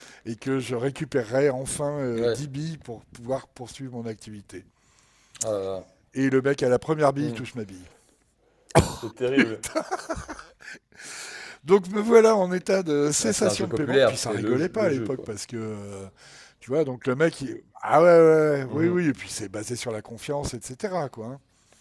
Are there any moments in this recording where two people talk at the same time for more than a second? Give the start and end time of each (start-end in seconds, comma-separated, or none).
13.2-15.3